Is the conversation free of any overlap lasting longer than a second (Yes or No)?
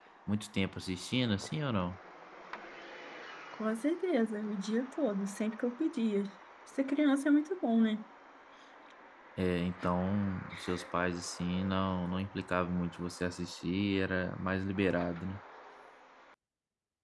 Yes